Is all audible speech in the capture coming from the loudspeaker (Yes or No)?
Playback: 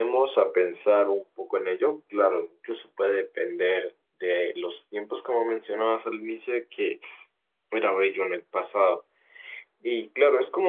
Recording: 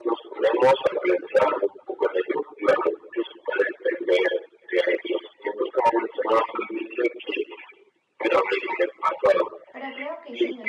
No